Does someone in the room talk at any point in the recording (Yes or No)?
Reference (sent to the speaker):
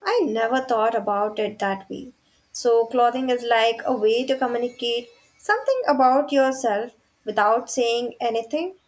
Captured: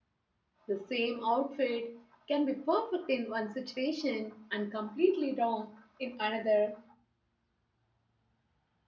Yes